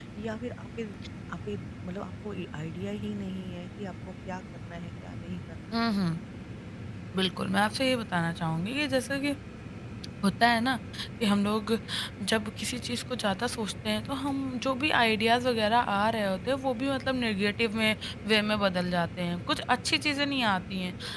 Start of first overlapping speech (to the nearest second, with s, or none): none